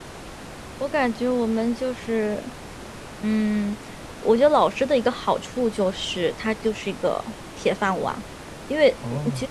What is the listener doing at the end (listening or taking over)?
listening